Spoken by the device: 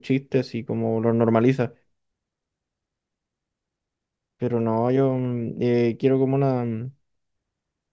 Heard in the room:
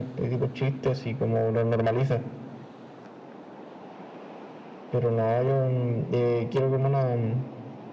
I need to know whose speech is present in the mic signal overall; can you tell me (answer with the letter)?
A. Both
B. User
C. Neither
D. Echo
D